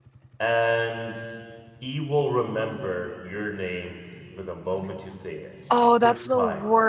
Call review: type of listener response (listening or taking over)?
taking over